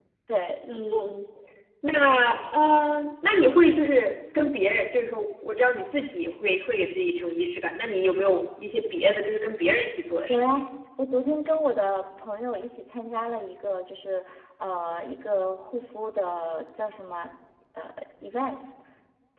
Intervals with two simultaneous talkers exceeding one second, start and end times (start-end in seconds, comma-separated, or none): none